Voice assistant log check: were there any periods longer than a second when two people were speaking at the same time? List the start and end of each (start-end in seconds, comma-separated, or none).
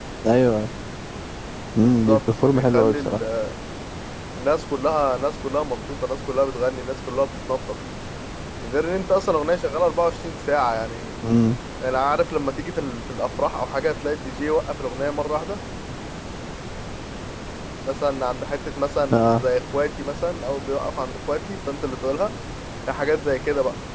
1.8-3.2